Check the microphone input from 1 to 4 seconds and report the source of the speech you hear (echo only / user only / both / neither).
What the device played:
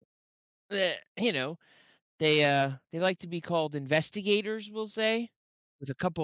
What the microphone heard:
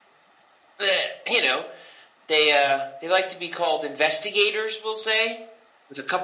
echo only